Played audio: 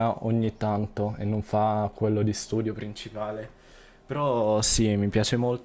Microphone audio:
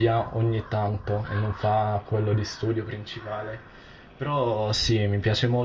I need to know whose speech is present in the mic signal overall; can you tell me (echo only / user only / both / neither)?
echo only